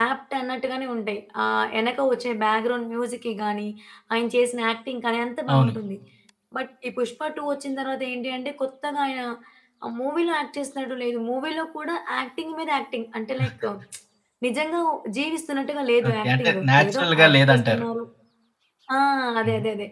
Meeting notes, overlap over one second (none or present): present